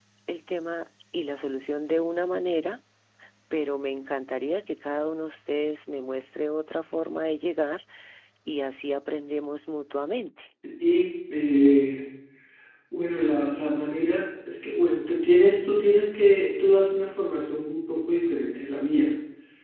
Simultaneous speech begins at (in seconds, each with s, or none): none